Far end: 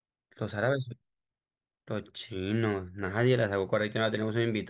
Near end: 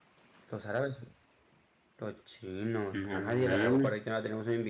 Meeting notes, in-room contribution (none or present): present